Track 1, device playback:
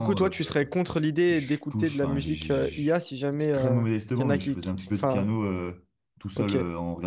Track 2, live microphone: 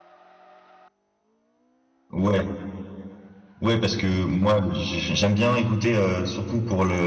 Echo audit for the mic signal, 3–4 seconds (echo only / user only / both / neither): user only